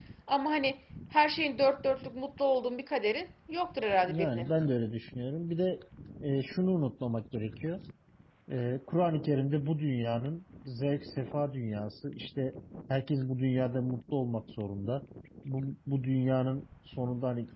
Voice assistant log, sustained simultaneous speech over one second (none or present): none